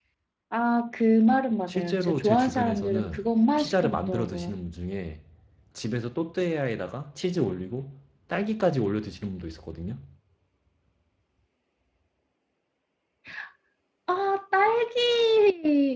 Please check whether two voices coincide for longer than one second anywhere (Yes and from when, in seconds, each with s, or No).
Yes, from 1.7 s